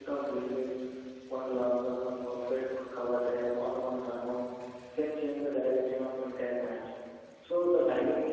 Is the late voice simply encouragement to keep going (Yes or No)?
Yes